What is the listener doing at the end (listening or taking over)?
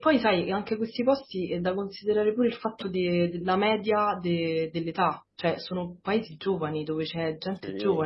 listening